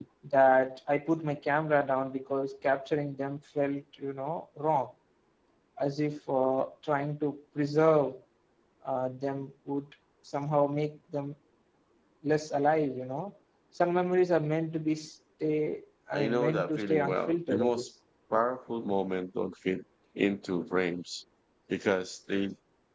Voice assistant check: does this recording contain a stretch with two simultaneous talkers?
Yes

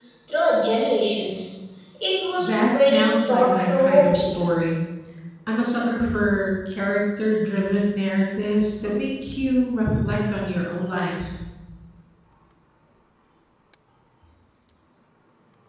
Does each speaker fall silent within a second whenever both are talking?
No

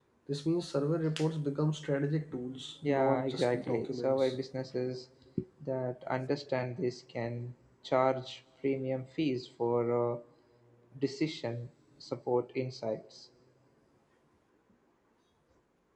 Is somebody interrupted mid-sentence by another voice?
Yes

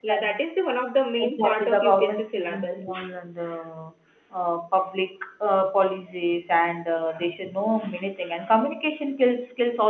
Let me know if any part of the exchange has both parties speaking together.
Yes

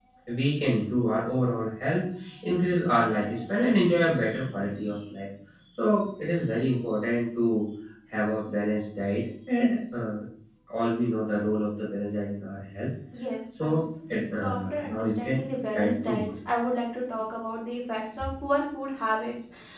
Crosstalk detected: Yes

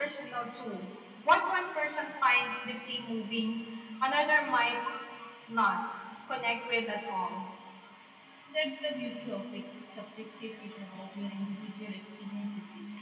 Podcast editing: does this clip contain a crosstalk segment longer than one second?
No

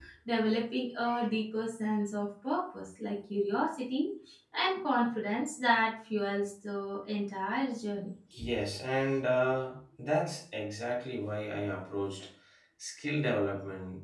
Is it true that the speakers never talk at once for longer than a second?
Yes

